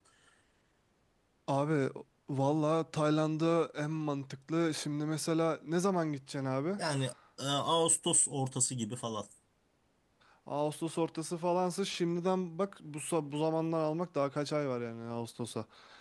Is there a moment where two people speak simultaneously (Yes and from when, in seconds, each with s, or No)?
No